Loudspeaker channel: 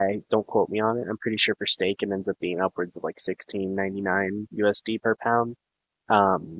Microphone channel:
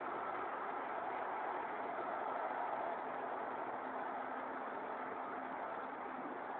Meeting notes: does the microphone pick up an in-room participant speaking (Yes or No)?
No